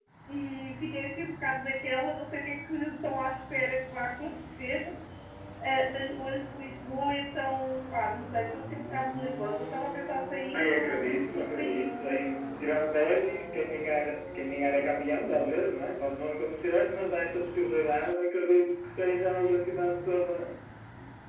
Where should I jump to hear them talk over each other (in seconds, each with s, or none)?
10.5 s